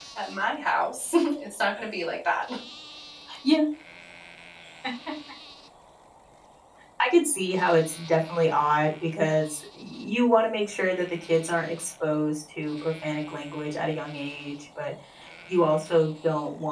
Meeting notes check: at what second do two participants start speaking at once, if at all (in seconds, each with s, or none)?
none